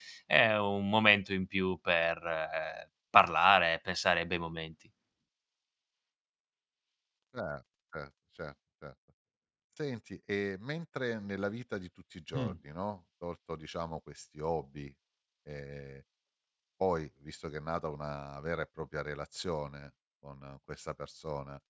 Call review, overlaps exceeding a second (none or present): none